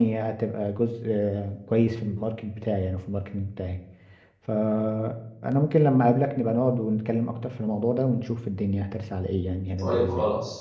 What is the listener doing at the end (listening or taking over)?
taking over